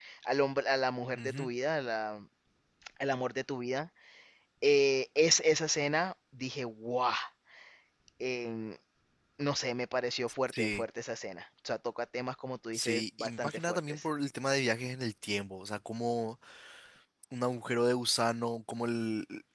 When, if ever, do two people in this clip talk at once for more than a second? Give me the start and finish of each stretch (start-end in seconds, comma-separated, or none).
12.7-14.0